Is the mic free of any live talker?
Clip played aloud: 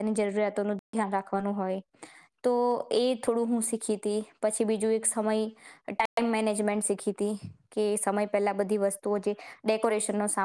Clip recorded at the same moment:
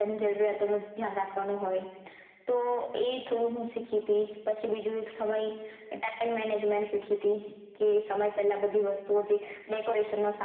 Yes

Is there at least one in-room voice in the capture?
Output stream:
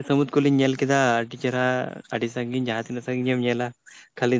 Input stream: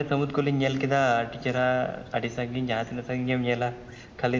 No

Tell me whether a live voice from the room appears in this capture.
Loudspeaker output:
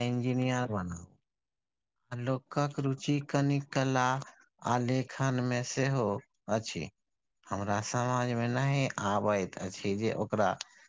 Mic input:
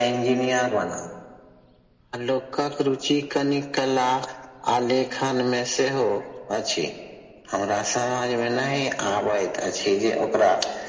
No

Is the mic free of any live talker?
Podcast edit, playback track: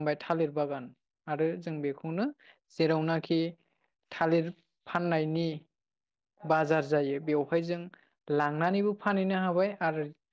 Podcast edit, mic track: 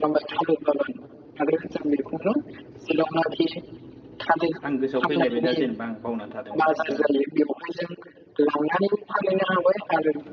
No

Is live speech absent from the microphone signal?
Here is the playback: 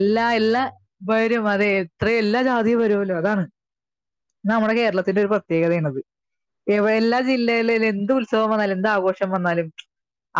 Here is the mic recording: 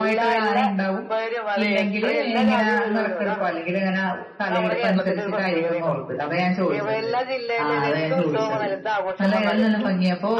No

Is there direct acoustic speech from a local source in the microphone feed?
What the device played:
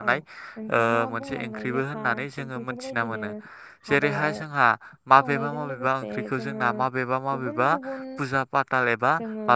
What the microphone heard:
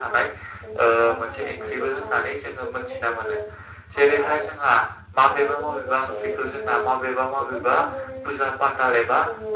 No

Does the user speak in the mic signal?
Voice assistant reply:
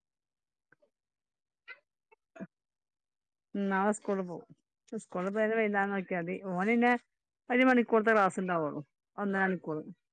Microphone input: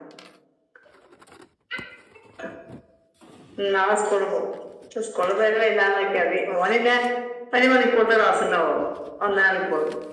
No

